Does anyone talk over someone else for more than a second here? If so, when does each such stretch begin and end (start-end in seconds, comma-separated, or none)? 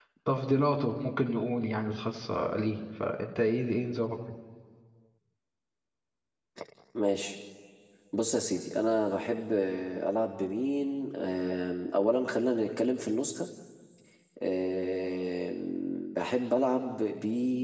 none